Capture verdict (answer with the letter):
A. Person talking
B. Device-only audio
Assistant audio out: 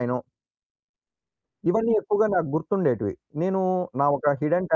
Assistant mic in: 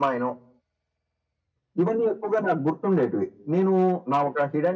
B